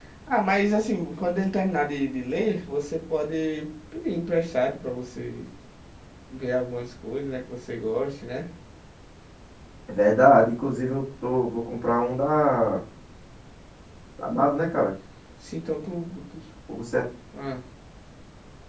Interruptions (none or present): none